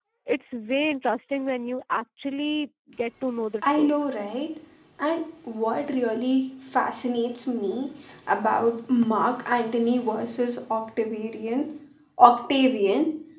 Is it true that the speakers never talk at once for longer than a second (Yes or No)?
Yes